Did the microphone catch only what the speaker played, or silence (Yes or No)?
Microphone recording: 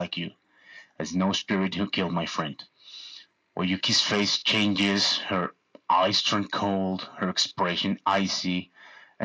Yes